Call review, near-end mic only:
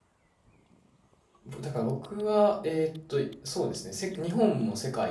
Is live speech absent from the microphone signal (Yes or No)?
No